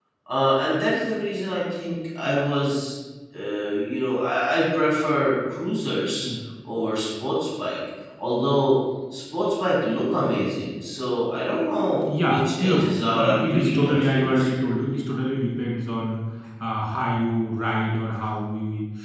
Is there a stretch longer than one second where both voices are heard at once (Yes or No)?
Yes